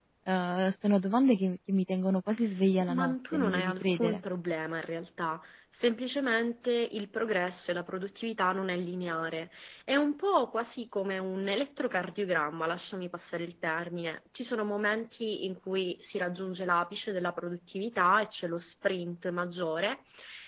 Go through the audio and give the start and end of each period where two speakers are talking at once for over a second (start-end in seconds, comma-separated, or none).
2.9-4.2